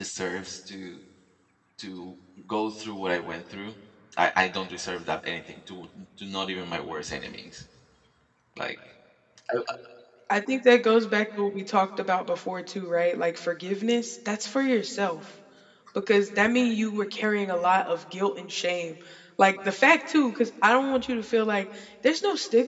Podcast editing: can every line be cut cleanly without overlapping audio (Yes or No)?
Yes